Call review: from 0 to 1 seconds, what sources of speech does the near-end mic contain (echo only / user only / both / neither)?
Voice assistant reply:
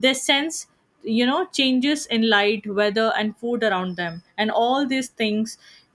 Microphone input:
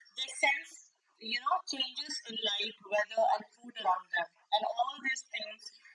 echo only